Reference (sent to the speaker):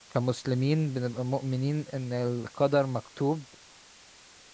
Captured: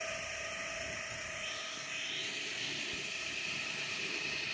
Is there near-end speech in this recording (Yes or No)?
No